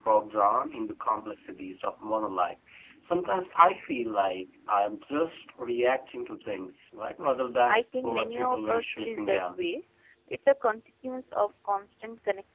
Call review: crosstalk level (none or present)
present